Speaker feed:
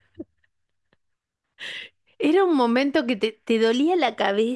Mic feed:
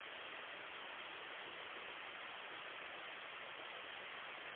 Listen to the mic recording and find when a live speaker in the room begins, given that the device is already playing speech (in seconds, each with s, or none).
none